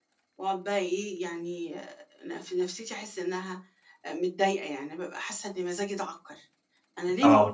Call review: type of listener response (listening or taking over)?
listening